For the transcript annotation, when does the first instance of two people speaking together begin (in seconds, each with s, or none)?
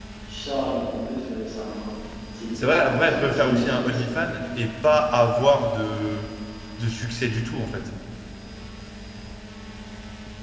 2.5 s